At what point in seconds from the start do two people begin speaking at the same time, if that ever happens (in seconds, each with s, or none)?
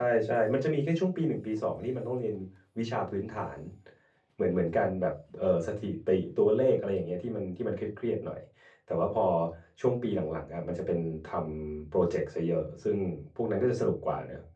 none